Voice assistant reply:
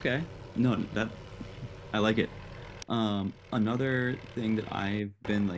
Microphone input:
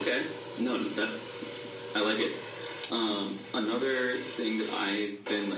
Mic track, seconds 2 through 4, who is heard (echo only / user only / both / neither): echo only